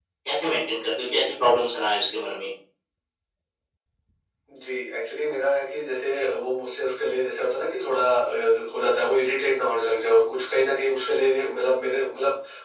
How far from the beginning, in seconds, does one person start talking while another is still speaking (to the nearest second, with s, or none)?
none